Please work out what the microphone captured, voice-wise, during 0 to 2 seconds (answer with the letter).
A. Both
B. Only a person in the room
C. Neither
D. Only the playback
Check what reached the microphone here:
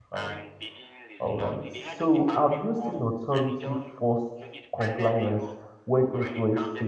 A